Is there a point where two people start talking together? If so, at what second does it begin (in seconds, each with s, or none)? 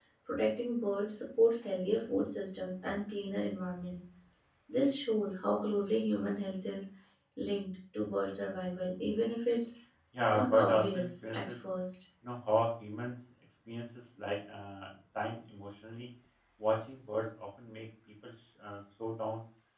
10.3 s